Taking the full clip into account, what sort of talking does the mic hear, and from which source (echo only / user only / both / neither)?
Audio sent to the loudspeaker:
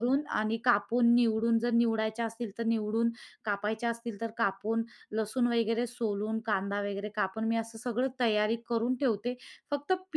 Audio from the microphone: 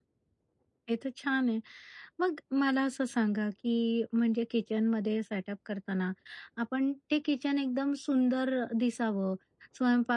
user only